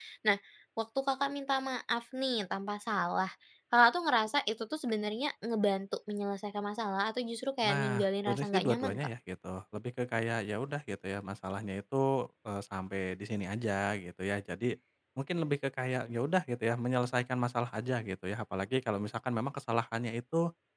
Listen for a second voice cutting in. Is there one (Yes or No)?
Yes